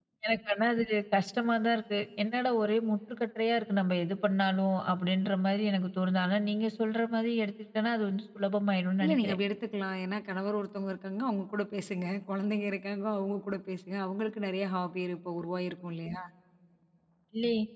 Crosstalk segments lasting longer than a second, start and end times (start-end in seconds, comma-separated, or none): none